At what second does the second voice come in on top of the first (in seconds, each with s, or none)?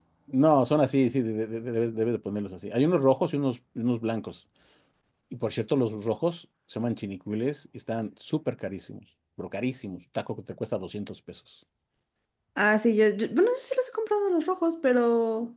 none